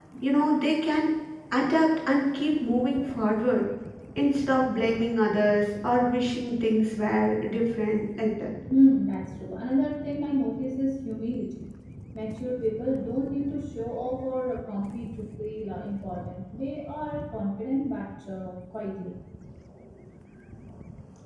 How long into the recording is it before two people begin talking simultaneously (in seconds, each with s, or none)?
none